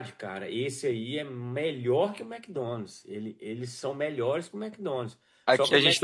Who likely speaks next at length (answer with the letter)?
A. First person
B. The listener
B